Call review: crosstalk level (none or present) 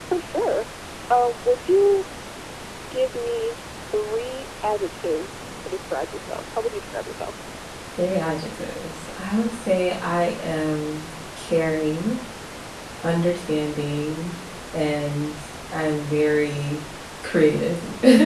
none